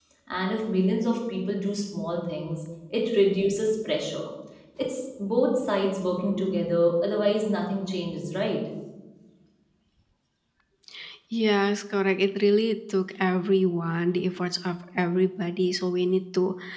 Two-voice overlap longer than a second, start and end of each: none

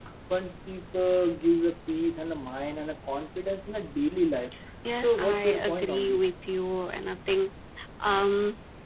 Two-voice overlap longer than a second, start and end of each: 5.0-6.3

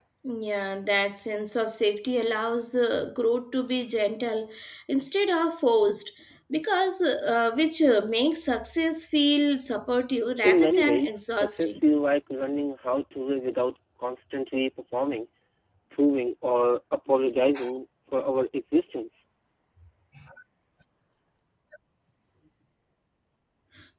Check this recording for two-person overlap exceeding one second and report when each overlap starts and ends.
10.4-11.8

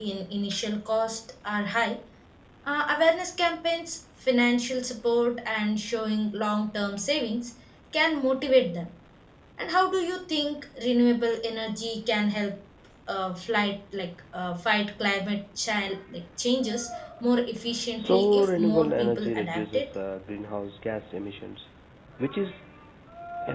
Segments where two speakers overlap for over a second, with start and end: 18.0-19.9

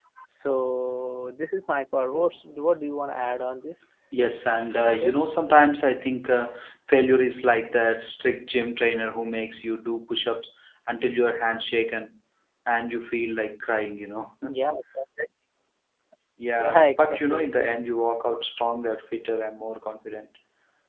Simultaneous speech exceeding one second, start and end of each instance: 16.6-17.8

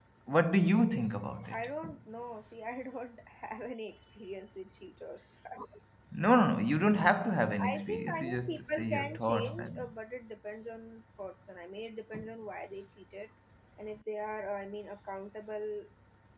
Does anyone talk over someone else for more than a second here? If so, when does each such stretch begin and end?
7.2-9.9

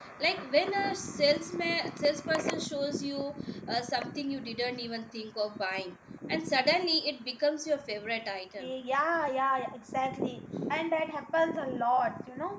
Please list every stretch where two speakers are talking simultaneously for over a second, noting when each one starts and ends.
none

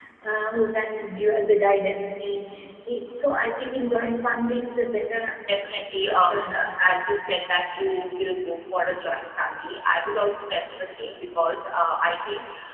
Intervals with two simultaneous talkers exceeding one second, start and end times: 5.6-6.8

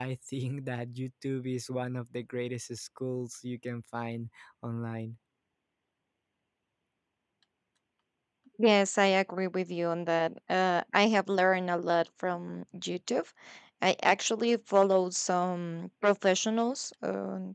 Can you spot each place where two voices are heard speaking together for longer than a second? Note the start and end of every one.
none

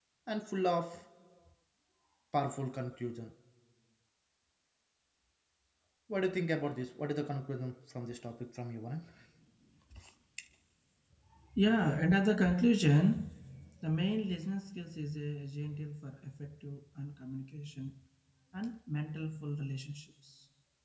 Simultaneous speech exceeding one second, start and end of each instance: none

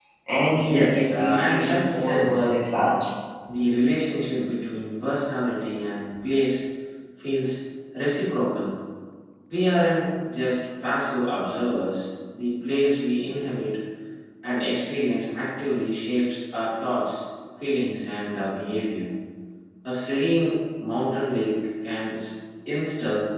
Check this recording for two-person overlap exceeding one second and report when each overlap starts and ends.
0.6-2.5

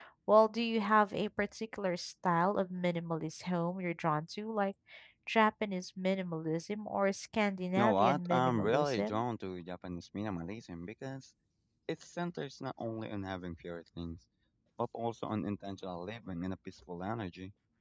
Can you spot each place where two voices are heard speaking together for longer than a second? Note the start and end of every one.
7.8-9.2

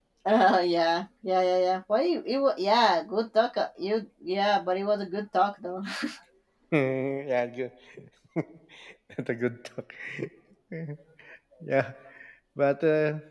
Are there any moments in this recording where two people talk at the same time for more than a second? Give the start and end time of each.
none

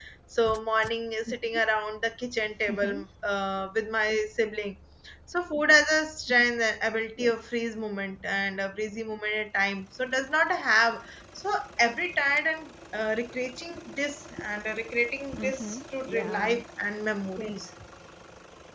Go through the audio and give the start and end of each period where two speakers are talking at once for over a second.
15.3-16.6

